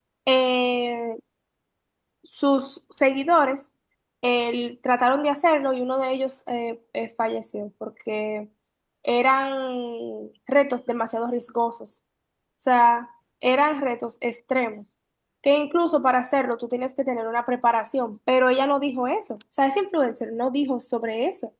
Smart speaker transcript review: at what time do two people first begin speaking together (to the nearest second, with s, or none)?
none